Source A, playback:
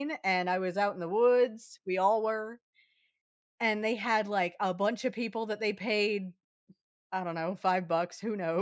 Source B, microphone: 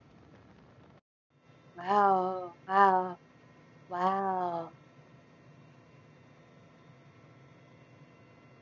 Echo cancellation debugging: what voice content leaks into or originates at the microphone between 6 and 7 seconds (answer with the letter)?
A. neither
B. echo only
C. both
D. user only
A